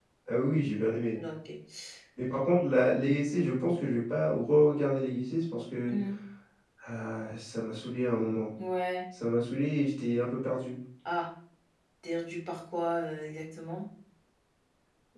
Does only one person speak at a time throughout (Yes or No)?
Yes